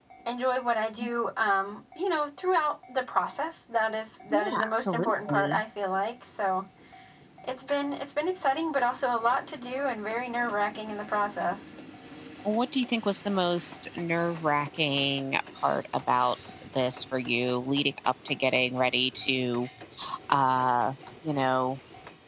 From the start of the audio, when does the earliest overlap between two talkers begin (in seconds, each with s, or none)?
4.3 s